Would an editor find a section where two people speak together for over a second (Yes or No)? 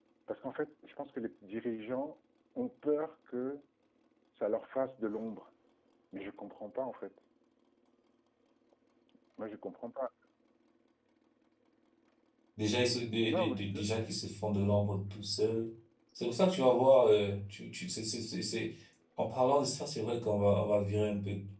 No